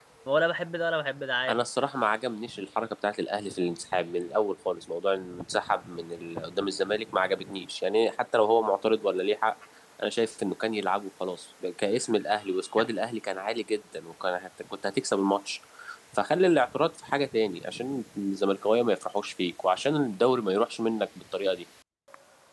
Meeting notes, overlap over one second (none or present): none